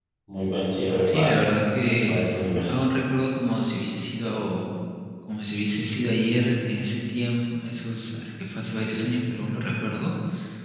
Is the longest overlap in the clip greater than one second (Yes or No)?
No